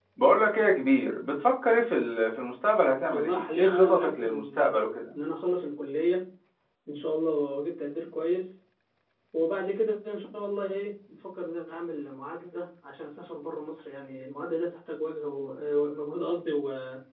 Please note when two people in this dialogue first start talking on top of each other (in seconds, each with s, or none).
3.1 s